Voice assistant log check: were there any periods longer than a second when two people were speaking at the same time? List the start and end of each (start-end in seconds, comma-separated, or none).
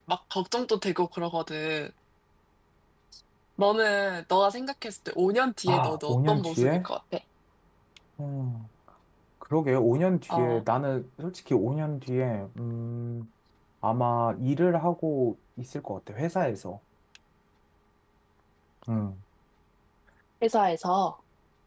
5.7-6.9